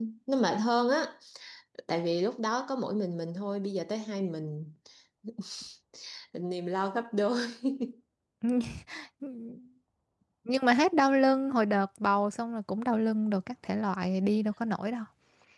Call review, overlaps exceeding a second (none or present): none